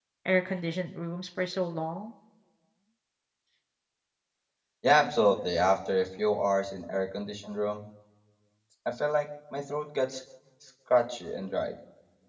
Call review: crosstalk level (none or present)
none